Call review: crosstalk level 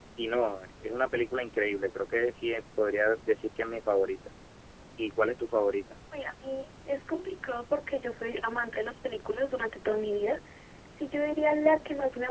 none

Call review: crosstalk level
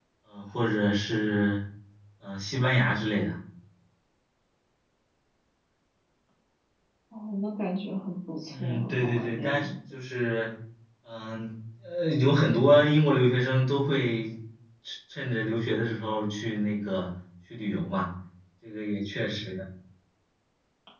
present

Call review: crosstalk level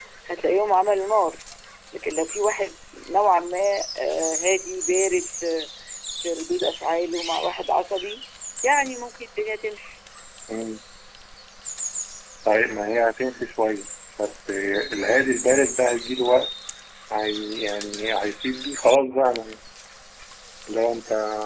none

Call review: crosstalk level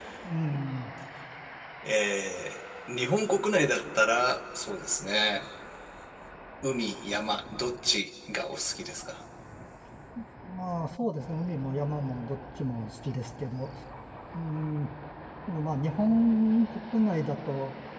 none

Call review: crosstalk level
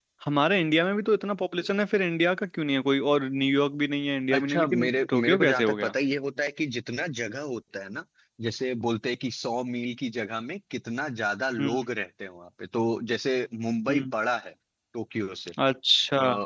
present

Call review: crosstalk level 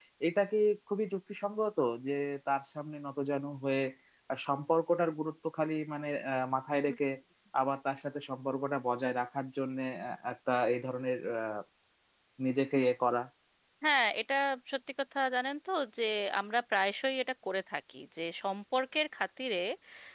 none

